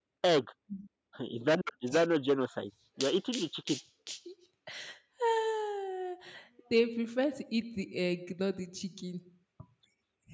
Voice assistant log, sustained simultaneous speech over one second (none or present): none